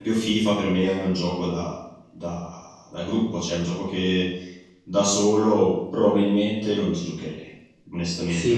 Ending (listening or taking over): taking over